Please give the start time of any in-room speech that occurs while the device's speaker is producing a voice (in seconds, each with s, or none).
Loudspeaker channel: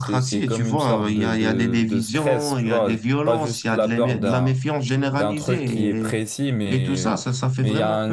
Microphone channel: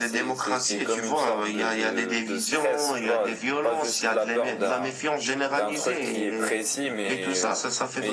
none